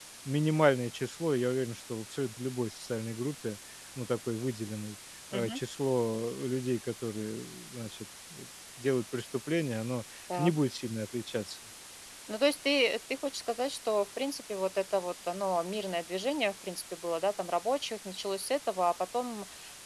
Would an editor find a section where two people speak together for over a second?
No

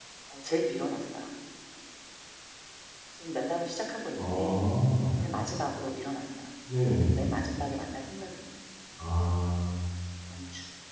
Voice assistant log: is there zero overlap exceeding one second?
Yes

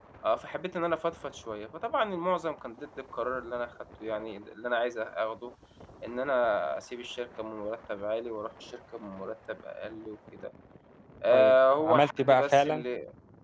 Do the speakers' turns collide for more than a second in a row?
Yes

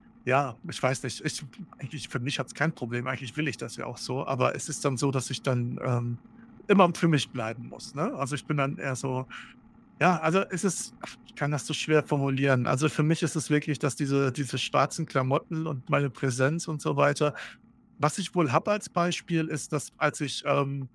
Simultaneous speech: No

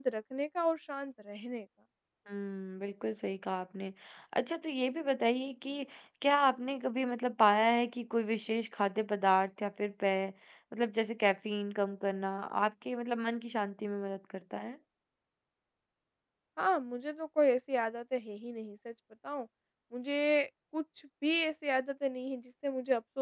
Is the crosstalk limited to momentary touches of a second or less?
Yes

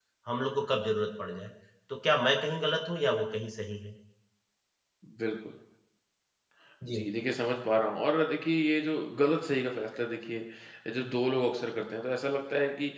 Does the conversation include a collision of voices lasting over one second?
No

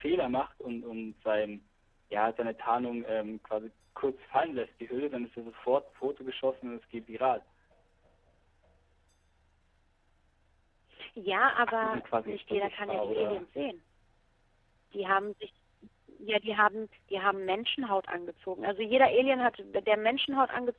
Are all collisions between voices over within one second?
No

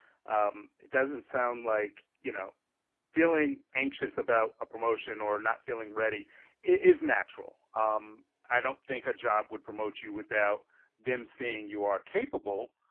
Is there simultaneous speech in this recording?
No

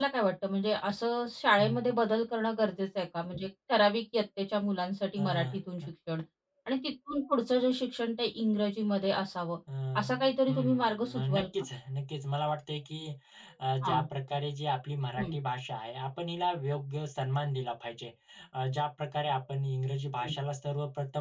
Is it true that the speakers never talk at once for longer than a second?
No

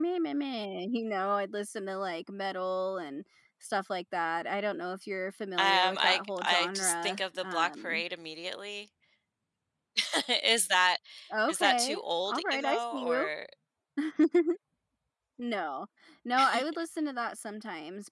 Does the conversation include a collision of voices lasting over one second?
Yes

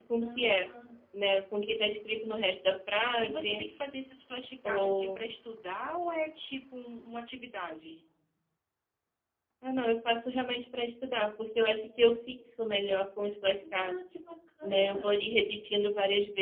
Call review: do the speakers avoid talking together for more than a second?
Yes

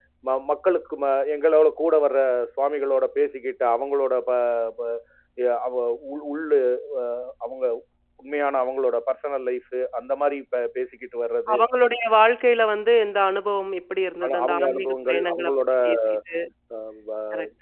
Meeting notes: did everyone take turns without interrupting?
No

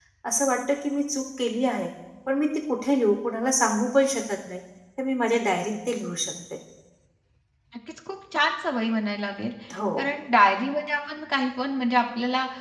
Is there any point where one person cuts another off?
No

